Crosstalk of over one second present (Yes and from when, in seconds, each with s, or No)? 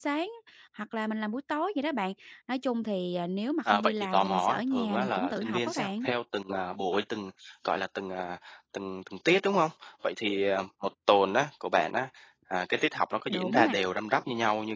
Yes, from 3.6 s